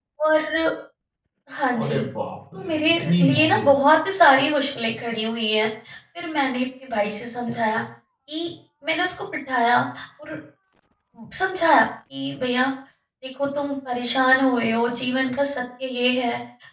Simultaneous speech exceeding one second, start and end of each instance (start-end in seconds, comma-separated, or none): 2.5-3.7